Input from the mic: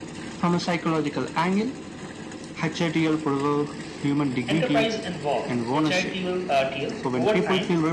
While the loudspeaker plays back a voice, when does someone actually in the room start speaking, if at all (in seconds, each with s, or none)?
4.5 s